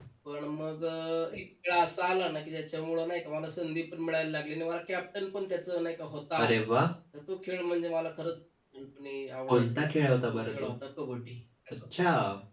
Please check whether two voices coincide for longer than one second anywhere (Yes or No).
Yes